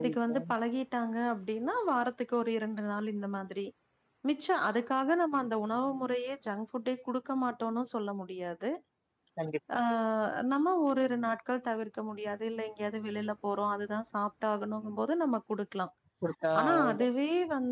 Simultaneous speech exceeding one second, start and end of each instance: none

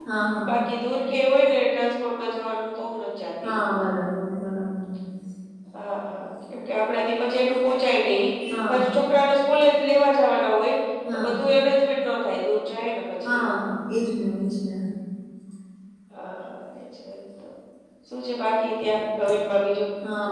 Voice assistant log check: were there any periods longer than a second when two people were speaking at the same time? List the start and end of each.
none

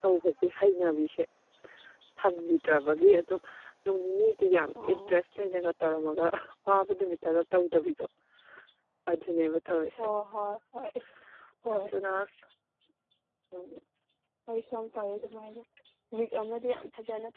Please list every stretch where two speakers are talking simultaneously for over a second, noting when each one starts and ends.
none

